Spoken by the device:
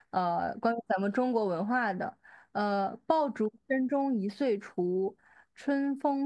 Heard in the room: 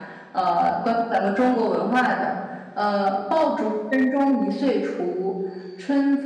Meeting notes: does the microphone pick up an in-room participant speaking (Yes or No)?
No